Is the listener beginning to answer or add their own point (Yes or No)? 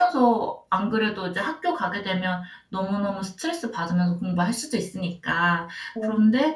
No